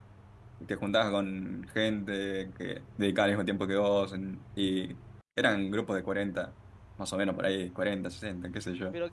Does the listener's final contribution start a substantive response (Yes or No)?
Yes